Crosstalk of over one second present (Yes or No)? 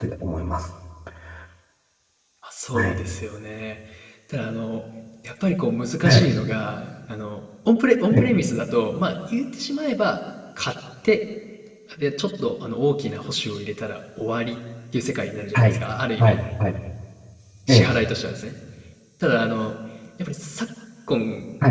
No